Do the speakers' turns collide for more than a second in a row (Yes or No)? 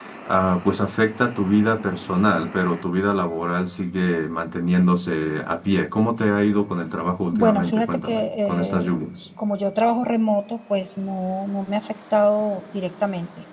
Yes